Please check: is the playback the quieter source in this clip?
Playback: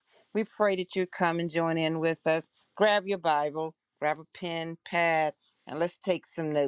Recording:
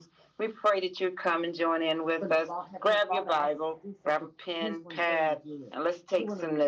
No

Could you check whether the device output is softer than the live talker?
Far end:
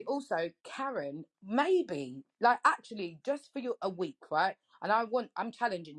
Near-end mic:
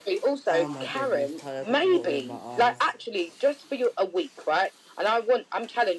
No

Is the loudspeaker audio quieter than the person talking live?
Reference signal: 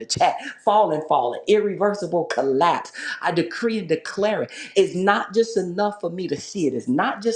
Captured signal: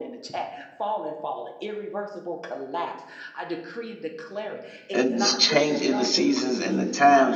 Yes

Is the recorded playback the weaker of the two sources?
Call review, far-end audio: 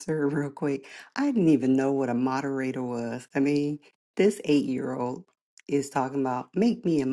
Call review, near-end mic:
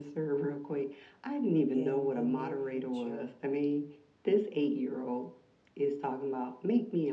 No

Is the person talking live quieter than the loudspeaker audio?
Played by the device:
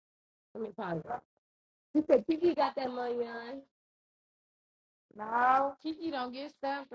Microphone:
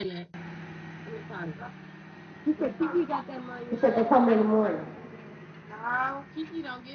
No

